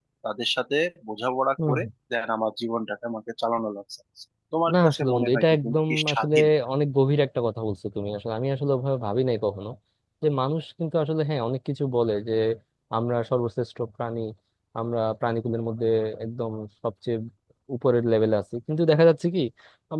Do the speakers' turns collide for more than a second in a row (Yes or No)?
Yes